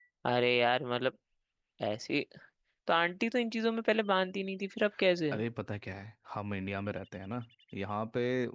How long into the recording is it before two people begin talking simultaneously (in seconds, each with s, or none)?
none